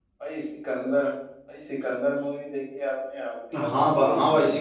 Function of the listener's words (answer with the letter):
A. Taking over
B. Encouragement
A